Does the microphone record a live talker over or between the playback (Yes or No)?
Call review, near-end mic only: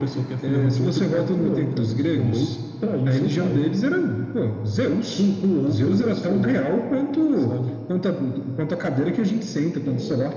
No